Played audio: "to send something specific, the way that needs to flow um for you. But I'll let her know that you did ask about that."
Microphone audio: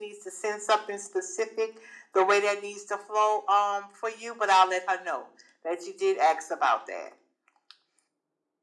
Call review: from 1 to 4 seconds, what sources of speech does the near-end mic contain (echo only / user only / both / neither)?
echo only